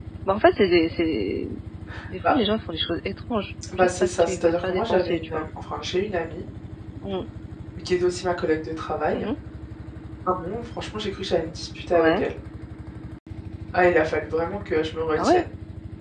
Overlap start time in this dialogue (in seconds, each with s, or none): 3.8 s